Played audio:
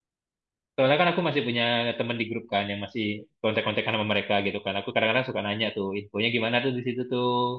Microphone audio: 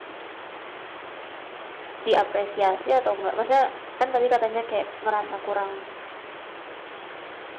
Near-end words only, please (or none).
diapresiasi atau enggak? Maksudnya kan tadi katanya kayak ngerasa kurang